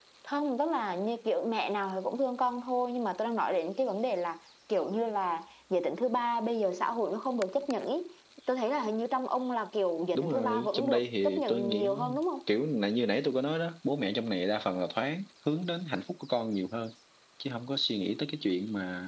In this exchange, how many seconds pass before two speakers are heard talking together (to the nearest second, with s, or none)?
10 s